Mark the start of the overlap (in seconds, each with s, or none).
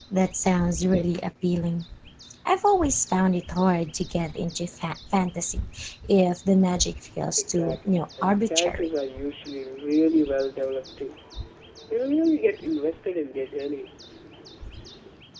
7.4 s